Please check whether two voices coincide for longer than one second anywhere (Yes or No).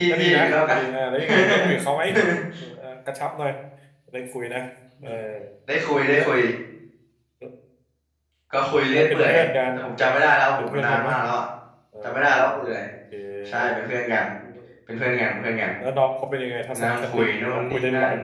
Yes